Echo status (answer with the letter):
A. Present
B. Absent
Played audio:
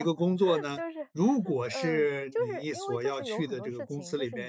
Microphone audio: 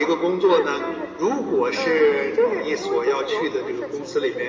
A